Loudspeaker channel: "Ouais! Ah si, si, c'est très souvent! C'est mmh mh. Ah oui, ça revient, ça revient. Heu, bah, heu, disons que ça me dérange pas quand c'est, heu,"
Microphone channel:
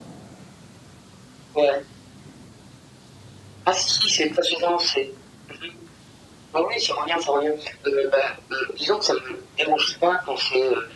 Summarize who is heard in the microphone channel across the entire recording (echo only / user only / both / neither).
echo only